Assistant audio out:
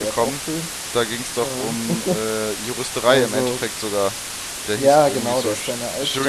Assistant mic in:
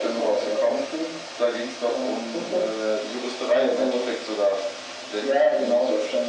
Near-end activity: none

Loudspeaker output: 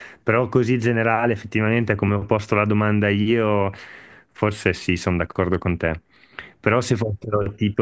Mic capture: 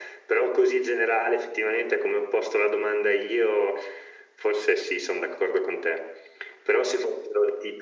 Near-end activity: none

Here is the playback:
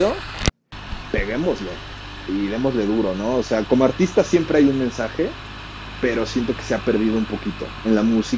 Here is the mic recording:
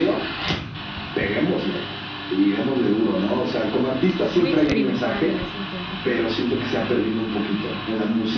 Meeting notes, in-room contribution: present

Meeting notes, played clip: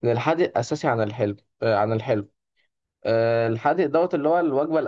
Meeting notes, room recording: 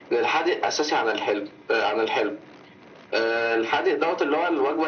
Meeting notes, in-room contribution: none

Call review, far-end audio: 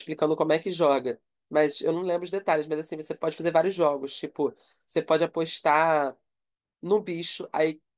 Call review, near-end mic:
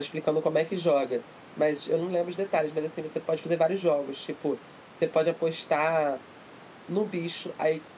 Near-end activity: none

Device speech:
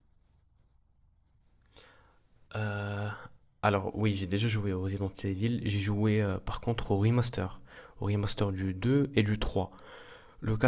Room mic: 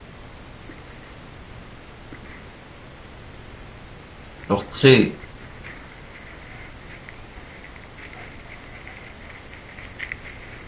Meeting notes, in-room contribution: present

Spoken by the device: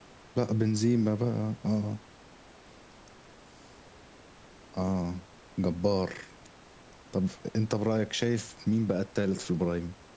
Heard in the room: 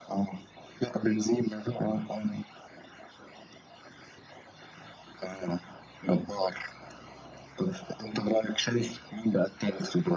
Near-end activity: none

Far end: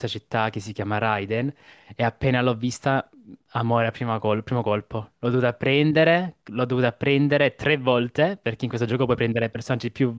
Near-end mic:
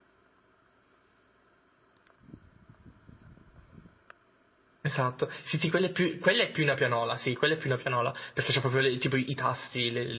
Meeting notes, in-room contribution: present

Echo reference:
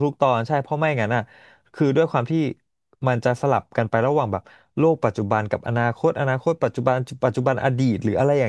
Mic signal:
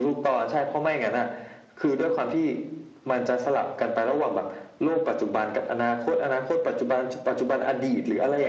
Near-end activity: none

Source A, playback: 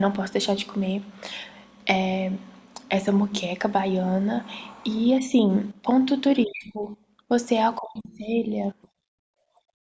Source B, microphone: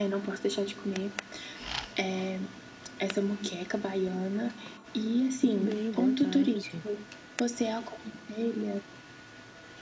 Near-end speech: present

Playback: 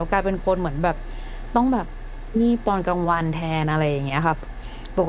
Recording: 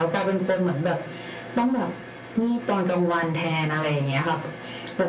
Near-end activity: none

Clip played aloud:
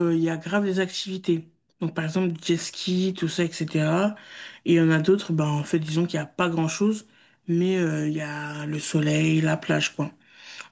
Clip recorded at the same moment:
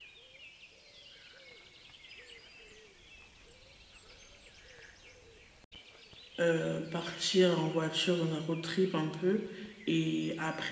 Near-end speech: present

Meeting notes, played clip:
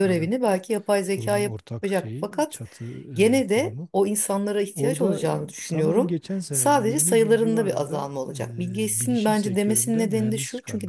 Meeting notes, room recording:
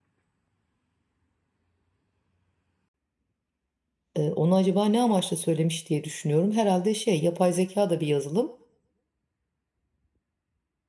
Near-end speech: present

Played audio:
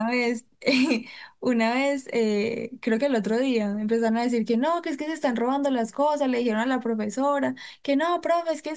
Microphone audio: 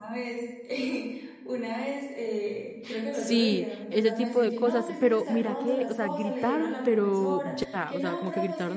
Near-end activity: present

